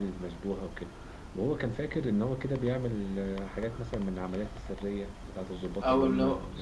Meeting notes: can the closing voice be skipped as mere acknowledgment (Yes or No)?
No